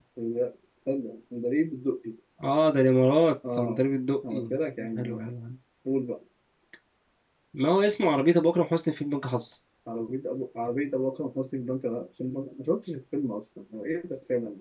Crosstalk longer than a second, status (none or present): none